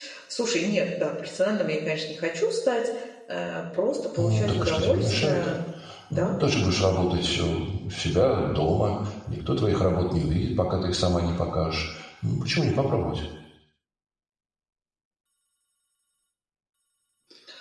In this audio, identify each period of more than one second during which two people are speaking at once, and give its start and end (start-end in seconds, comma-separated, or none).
4.2-5.5